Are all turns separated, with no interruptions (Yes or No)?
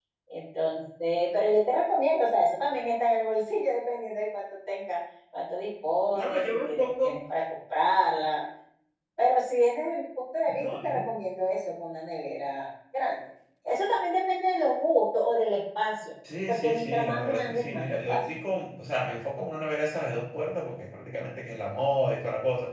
No